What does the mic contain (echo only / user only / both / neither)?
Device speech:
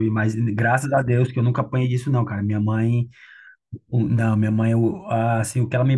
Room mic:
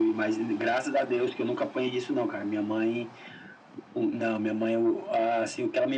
echo only